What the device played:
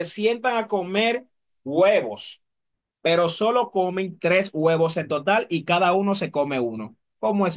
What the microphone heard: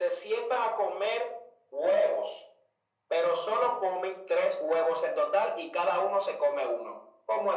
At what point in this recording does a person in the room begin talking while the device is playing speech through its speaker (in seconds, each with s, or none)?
none